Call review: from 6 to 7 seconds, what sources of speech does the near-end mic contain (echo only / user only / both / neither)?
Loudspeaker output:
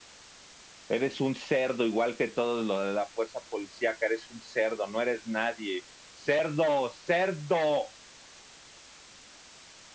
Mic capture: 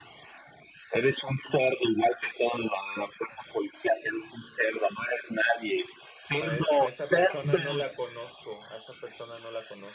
both